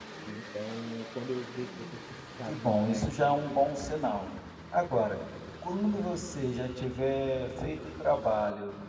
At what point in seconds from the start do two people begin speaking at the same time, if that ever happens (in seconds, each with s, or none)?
2.5 s